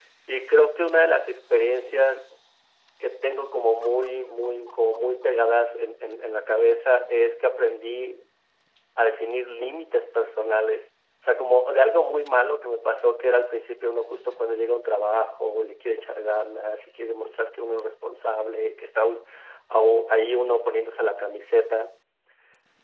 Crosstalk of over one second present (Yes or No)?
No